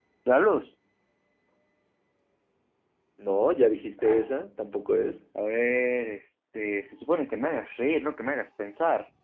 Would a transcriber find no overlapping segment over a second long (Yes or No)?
Yes